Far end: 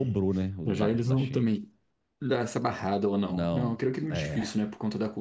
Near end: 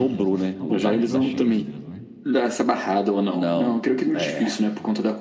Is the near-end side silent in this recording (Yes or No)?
No